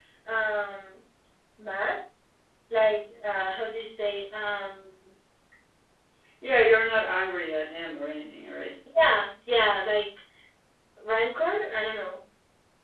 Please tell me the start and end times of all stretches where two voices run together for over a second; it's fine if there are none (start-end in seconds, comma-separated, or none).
none